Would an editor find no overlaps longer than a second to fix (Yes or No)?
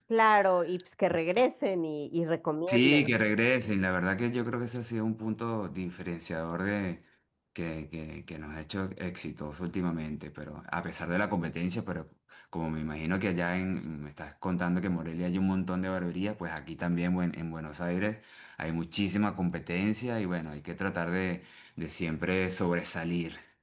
Yes